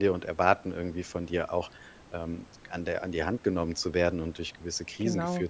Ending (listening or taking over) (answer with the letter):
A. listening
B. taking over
A